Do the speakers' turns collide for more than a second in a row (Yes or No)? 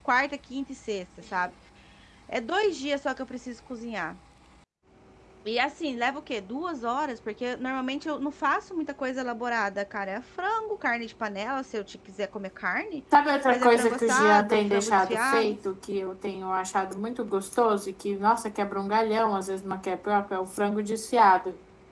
Yes